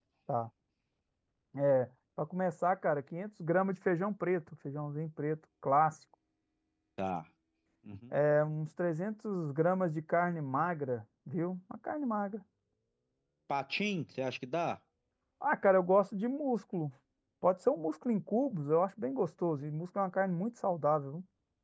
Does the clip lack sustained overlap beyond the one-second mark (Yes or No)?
Yes